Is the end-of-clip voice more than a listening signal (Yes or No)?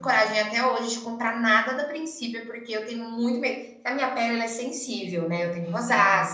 No